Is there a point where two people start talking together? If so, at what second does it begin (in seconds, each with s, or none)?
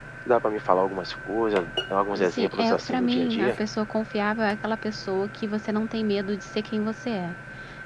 2.1 s